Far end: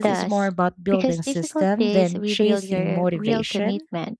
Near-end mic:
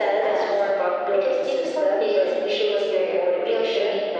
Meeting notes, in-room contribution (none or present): none